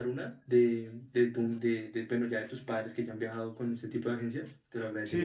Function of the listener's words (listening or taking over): taking over